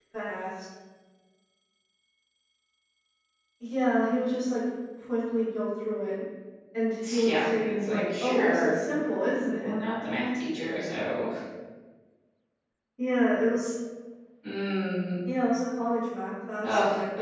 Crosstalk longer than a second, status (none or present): present